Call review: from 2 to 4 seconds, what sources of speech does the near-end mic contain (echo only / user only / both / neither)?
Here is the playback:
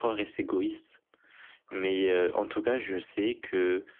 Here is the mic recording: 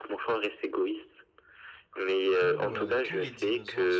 both